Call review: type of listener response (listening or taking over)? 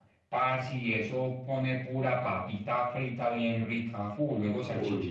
listening